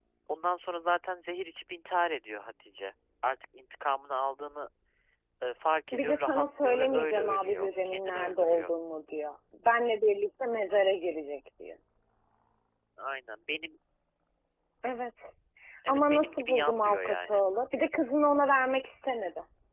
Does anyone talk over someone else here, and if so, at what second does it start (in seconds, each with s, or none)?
5.9 s